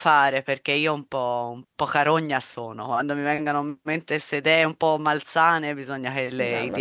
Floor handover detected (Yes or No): Yes